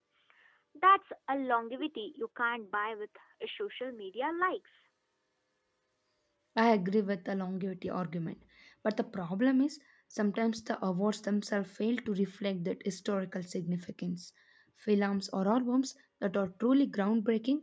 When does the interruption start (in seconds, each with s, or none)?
none